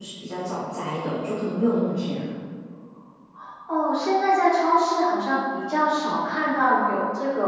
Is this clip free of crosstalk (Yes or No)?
Yes